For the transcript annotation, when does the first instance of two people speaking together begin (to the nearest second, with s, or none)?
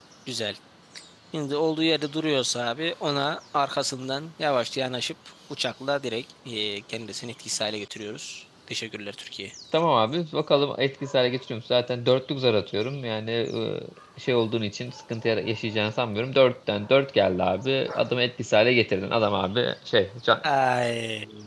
none